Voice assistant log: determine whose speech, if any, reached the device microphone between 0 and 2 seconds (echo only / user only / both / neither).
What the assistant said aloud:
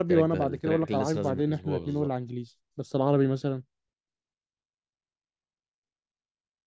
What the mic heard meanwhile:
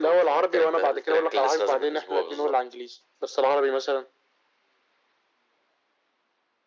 echo only